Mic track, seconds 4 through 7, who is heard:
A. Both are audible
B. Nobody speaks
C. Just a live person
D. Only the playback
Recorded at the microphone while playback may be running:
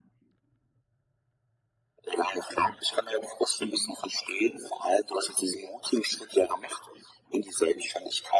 D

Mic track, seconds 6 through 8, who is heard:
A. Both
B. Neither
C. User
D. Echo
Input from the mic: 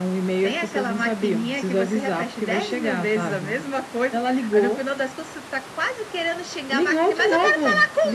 D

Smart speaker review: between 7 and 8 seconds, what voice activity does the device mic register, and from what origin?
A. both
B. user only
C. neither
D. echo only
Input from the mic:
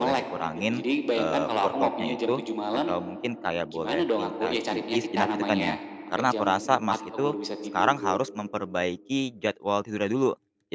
A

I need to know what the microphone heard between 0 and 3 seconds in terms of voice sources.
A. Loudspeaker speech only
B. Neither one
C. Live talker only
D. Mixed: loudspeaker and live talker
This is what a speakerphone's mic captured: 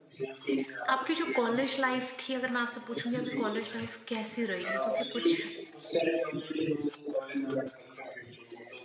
D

